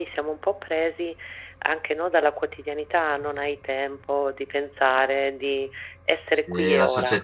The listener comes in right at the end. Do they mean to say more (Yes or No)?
Yes